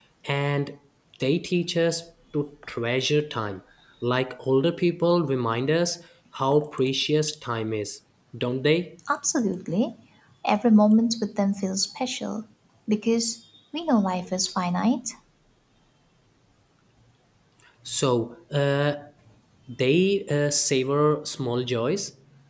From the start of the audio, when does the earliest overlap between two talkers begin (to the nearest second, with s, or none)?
none